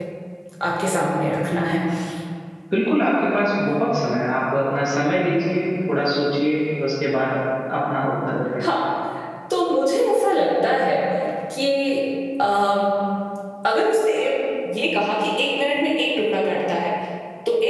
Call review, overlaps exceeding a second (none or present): none